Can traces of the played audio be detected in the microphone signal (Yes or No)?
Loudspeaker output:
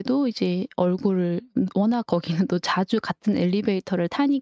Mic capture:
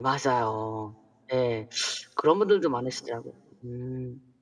No